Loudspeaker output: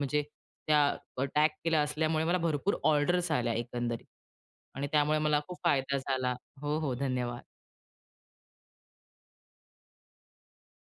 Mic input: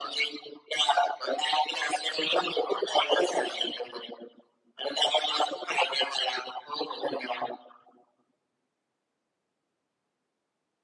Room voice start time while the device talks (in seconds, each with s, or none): none